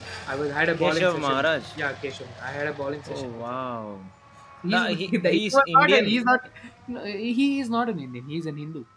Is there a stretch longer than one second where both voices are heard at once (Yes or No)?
Yes